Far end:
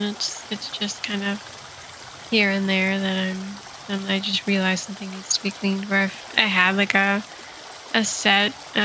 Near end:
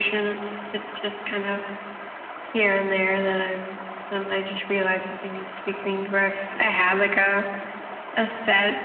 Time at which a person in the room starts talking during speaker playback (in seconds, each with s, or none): none